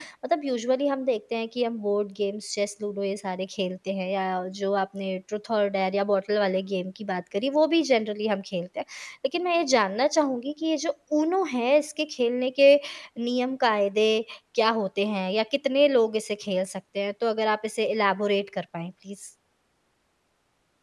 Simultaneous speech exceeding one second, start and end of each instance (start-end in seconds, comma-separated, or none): none